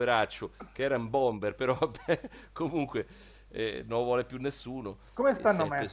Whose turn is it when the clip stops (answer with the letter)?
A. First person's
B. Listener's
B